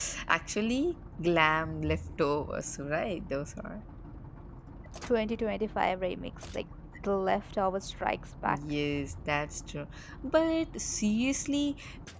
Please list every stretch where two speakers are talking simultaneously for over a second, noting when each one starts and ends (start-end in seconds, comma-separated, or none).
none